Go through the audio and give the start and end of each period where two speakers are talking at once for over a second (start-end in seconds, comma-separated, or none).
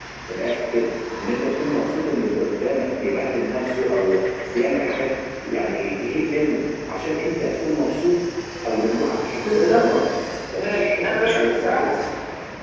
10.6-11.9